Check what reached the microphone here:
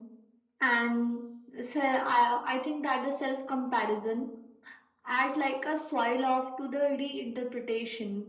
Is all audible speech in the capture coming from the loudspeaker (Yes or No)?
Yes